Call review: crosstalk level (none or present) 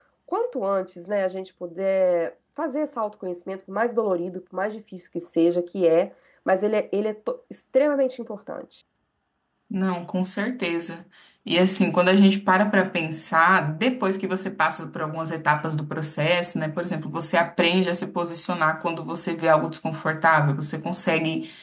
none